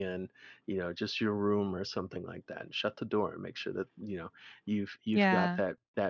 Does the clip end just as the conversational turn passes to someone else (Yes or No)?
No